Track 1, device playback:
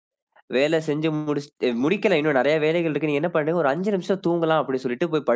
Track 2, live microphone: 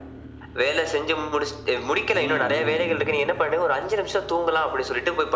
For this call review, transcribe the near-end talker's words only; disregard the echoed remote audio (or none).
ம், ம், ம்.